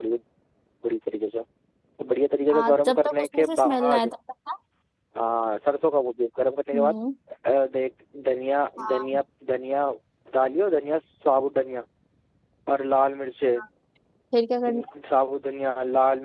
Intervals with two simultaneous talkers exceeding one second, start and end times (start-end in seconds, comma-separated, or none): 2.5-4.1